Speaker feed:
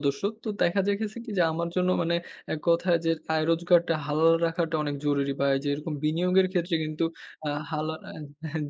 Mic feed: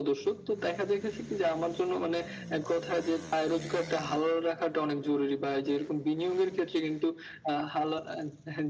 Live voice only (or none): none